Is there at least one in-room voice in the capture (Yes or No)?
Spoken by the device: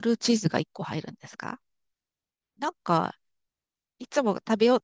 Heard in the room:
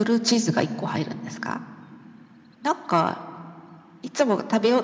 No